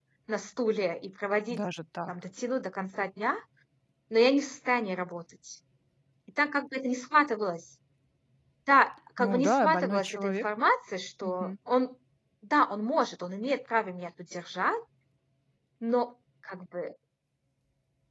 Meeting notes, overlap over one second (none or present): present